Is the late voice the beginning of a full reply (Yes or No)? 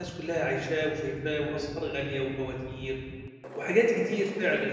No